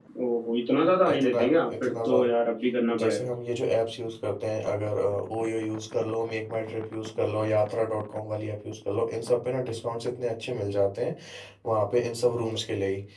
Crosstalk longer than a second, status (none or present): present